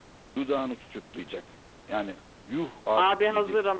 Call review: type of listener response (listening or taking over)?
taking over